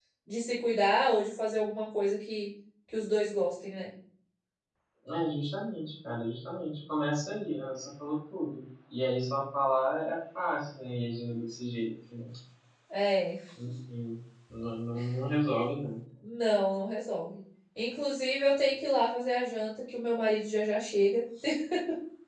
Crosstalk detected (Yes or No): No